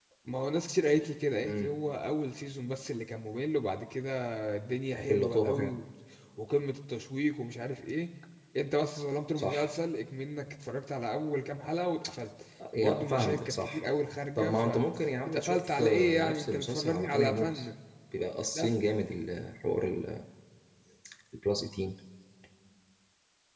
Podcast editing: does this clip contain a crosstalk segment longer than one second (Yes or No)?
Yes